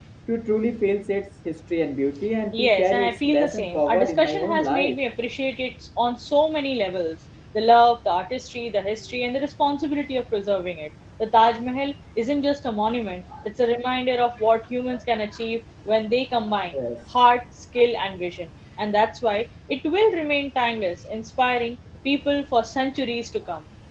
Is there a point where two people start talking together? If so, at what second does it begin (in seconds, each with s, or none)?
2.5 s